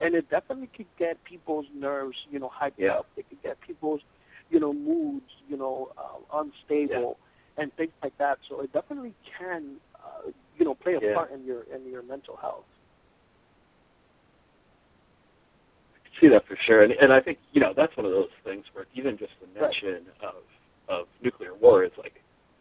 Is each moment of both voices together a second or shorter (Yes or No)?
Yes